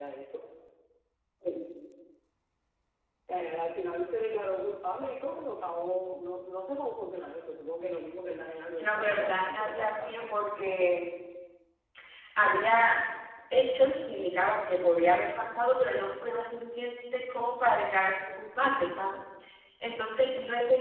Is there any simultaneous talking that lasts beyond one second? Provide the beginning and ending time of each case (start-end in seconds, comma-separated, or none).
8.8-10.1